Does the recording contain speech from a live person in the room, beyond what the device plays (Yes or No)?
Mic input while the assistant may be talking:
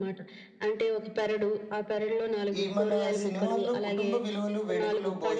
Yes